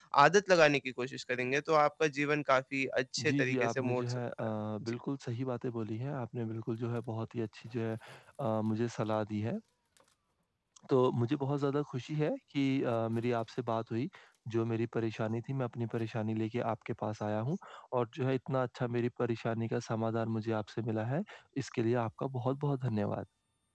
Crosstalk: present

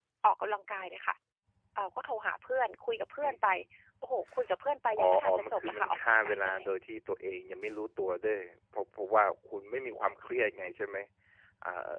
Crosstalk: present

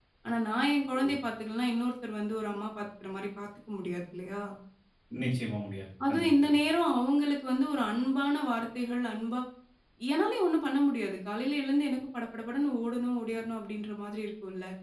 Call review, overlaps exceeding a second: none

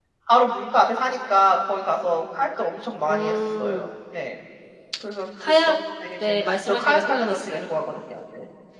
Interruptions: present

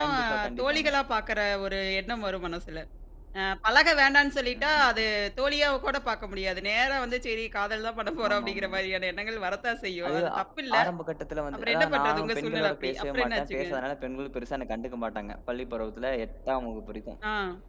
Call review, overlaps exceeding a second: present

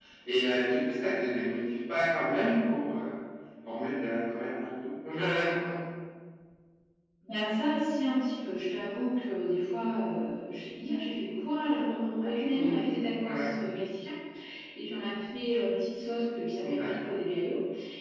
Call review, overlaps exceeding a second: none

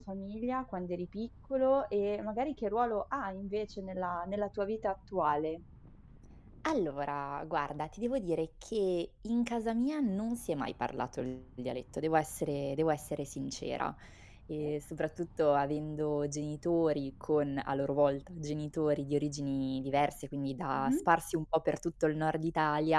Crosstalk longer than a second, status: none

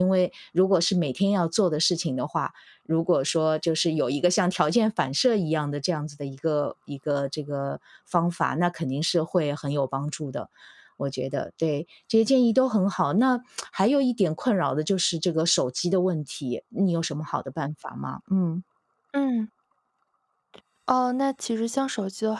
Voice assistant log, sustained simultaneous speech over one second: none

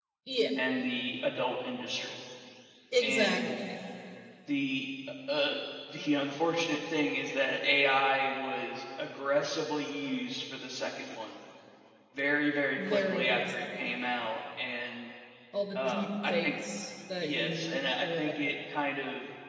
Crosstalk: present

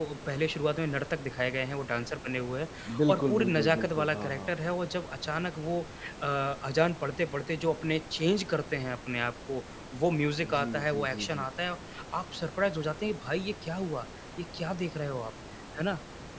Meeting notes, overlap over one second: present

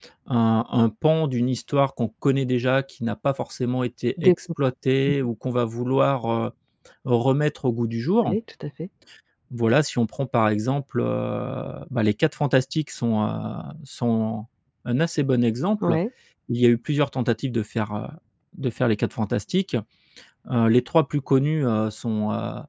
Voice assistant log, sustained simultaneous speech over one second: none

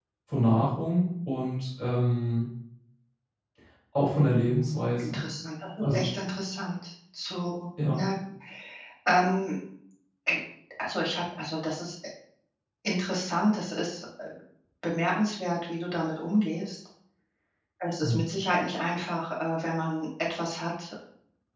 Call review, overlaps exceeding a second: none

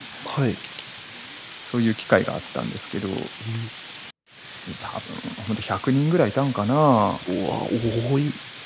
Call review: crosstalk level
none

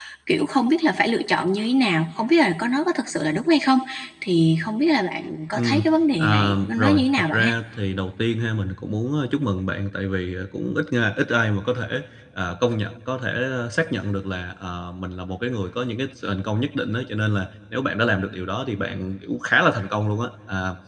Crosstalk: present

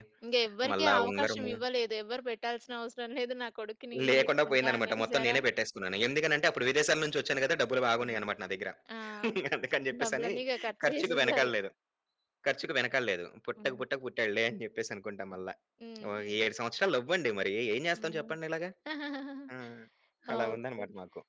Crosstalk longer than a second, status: present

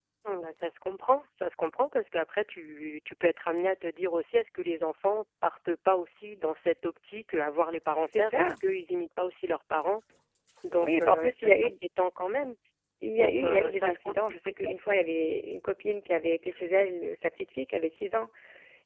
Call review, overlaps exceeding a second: present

